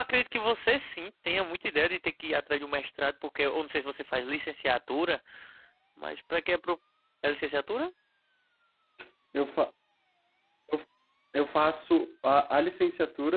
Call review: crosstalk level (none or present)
none